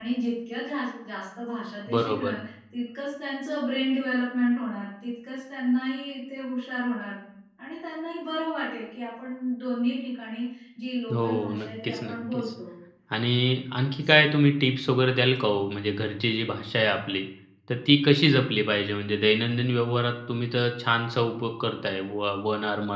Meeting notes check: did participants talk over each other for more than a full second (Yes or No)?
Yes